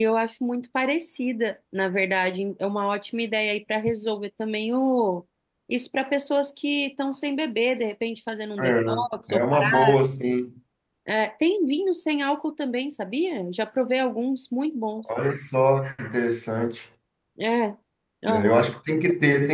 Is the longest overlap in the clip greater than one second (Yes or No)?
Yes